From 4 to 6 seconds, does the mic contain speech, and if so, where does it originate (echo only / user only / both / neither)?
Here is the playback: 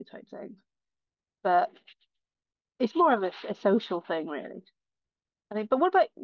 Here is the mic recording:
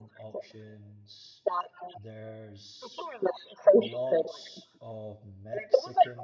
both